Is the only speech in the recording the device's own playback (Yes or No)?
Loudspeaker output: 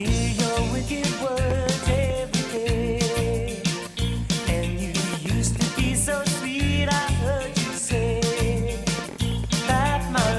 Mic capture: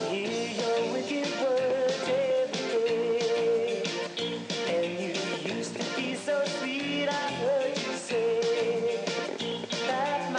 Yes